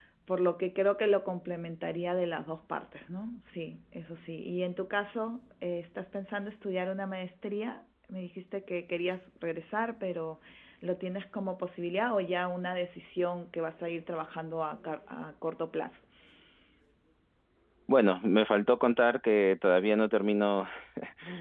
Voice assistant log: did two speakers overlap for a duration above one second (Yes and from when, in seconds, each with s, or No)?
No